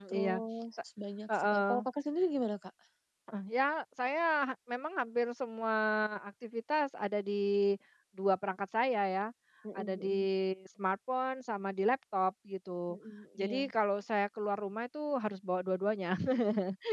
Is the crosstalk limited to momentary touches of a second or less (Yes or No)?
Yes